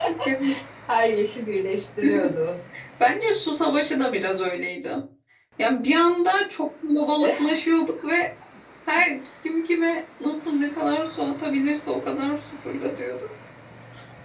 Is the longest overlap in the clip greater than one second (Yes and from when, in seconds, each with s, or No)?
No